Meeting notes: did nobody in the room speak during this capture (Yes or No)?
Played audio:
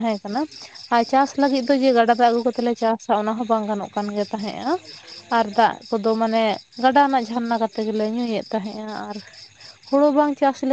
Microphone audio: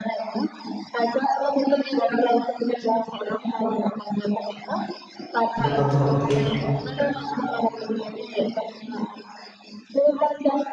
No